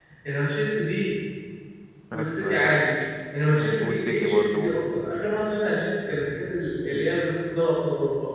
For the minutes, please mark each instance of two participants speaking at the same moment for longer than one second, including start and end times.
3.5-5.0

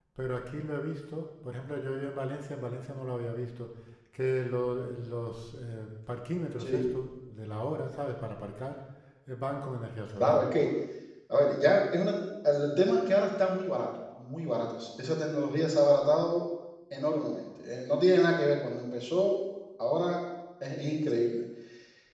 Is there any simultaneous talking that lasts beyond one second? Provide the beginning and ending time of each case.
none

